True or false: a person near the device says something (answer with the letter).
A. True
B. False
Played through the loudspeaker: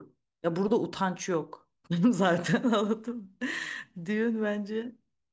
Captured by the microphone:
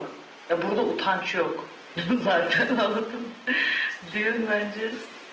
B